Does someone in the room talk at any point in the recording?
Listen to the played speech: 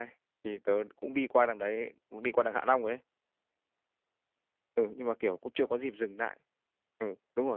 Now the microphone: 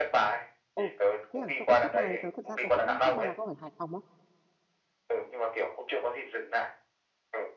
Yes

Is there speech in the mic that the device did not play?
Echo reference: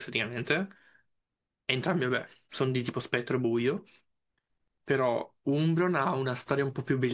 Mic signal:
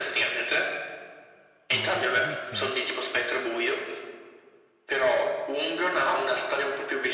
Yes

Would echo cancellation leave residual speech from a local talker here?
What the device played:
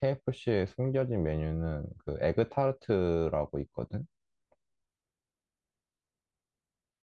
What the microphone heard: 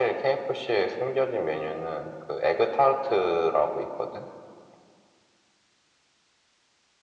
No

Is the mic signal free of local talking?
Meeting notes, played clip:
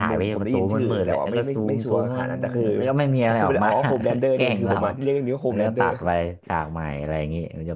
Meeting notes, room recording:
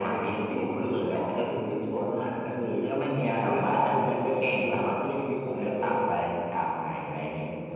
Yes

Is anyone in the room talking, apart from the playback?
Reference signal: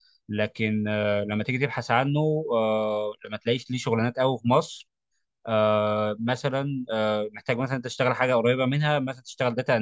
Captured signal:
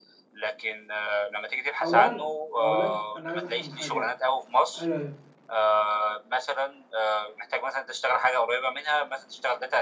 Yes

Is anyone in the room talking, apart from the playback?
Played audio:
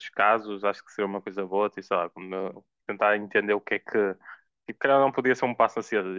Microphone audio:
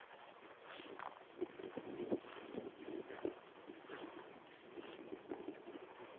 No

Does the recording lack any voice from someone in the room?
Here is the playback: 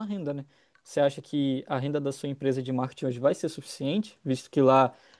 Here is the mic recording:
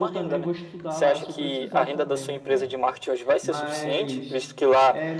No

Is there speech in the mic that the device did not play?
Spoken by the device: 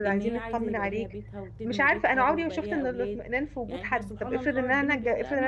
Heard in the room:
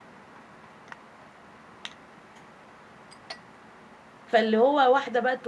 Yes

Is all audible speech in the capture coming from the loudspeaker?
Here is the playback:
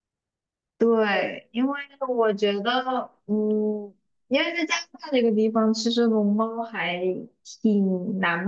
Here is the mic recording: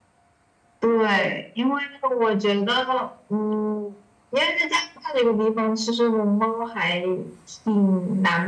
Yes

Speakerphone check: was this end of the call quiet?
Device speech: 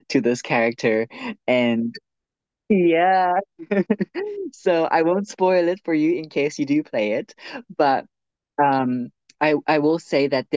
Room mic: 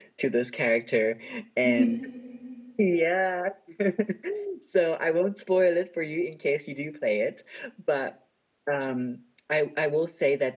No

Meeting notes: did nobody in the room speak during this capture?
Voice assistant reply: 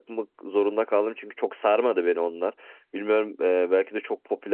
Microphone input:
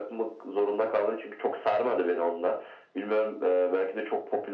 Yes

